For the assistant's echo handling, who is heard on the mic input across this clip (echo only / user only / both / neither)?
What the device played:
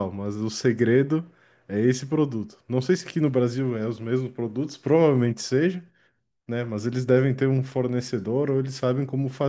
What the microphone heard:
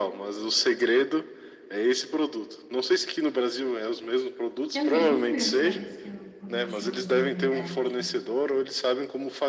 both